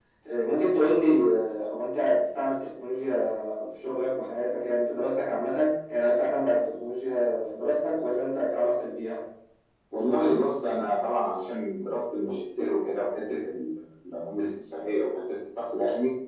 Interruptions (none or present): none